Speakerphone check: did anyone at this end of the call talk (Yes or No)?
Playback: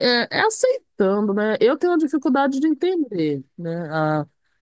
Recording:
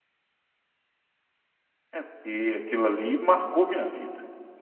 Yes